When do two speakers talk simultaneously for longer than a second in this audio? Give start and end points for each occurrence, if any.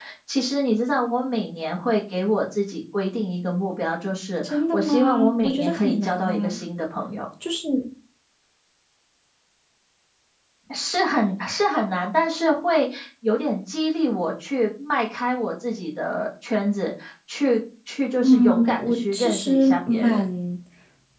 4.5-6.6, 18.2-20.2

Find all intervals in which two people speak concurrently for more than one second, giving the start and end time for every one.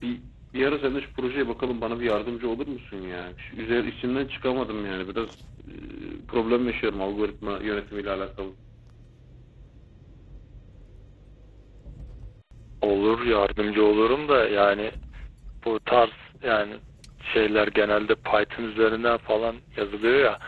none

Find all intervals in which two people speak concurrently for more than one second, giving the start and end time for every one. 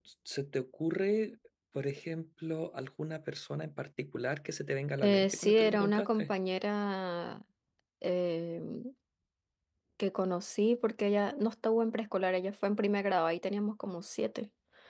5.0-6.3

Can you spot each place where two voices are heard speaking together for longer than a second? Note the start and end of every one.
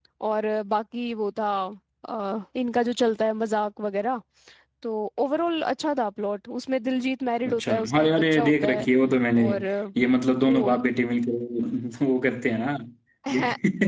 7.5-8.9

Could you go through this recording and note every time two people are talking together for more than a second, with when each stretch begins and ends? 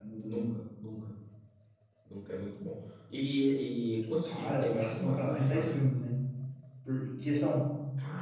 4.2-5.8

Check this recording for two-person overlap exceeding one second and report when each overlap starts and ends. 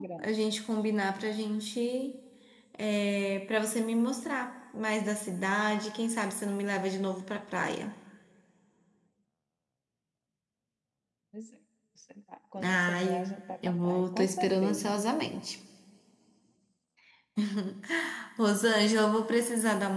12.6-14.9

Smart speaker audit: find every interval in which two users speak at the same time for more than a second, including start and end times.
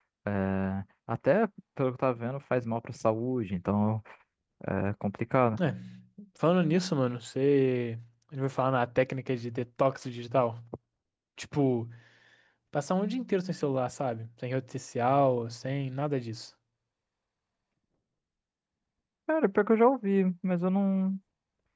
none

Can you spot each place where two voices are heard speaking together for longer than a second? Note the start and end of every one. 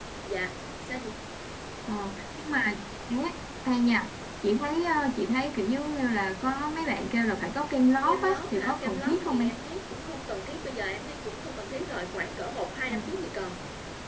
8.0-9.5

